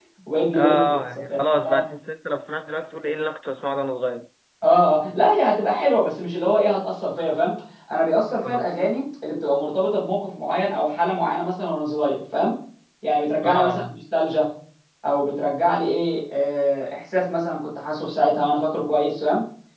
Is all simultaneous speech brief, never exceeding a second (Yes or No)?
No